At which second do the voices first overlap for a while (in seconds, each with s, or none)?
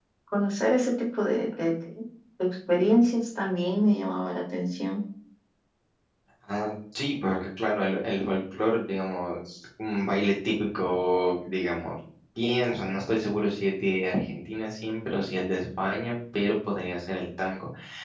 none